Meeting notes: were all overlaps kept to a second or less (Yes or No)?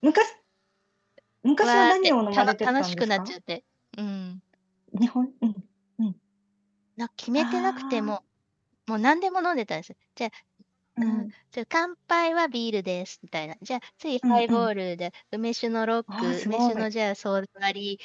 No